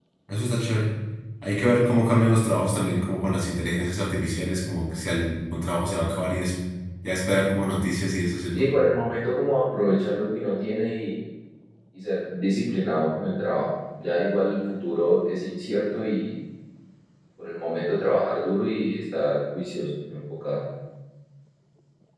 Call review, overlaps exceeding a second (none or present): none